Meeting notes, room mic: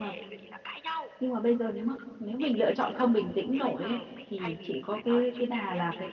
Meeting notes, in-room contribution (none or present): present